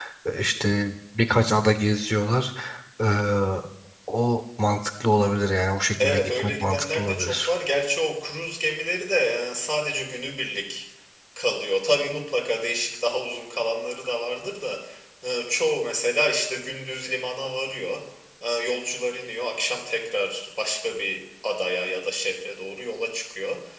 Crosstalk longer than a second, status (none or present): present